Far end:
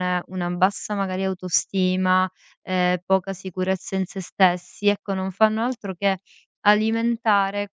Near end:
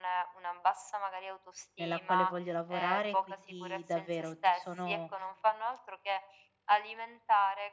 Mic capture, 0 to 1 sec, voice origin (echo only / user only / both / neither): echo only